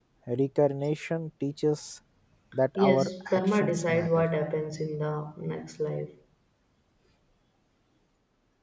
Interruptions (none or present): present